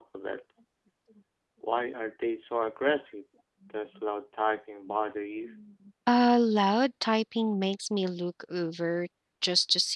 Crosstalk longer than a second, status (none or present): none